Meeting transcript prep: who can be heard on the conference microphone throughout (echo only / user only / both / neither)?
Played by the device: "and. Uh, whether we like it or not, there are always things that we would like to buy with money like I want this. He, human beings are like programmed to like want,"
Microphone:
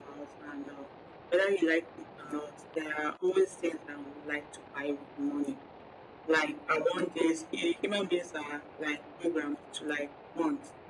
echo only